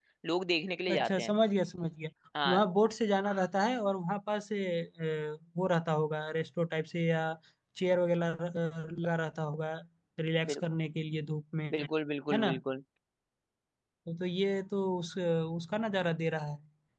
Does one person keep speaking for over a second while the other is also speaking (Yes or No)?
No